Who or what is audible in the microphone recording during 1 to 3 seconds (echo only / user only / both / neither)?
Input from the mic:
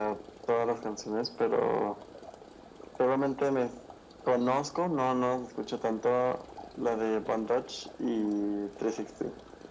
echo only